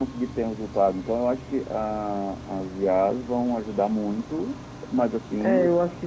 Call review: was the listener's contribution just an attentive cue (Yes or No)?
No